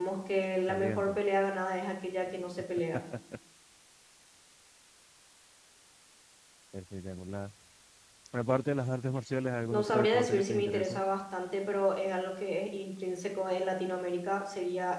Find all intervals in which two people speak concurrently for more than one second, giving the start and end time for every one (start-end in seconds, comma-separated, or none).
9.7-11.0